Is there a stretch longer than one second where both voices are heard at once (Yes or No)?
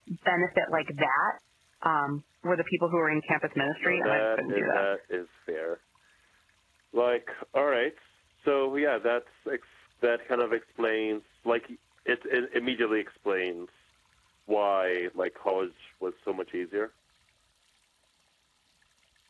Yes